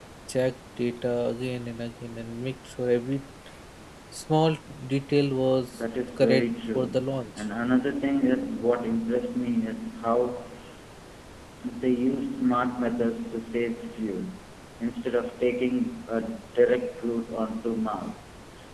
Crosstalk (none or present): present